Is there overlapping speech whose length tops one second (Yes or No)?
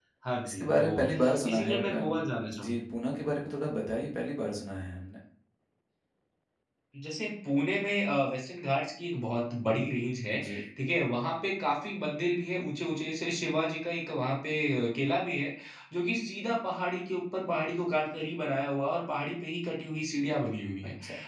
Yes